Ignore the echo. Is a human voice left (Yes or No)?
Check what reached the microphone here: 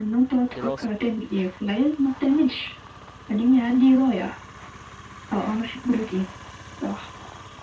Yes